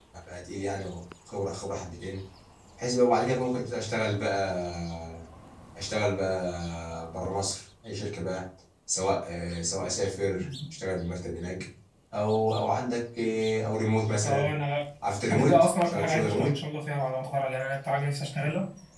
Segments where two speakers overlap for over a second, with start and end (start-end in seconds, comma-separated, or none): 15.3-16.5